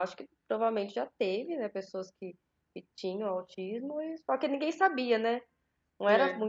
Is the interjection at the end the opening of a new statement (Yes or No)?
No